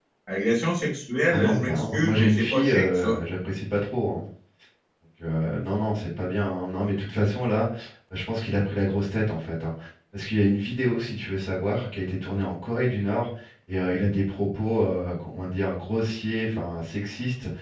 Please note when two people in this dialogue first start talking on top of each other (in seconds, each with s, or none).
1.3 s